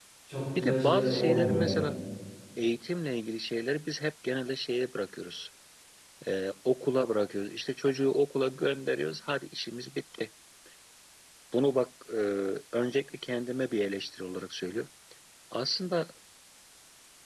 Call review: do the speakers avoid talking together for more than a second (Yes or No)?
No